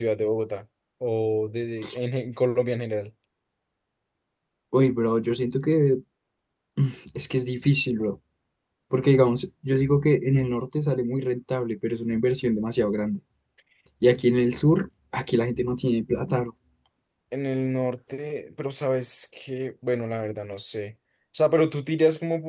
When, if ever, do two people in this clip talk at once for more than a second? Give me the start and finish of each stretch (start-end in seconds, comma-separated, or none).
none